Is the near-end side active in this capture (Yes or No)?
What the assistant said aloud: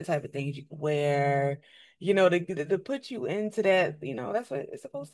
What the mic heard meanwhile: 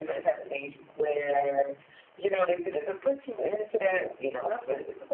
No